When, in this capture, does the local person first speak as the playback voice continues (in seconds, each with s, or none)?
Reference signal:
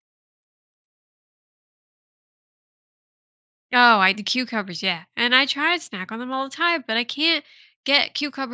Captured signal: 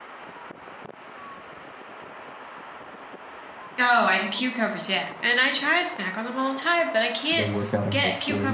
7.3 s